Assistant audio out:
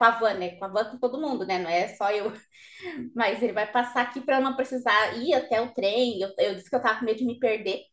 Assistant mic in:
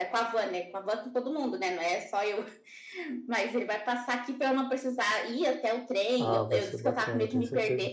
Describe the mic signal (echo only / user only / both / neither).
both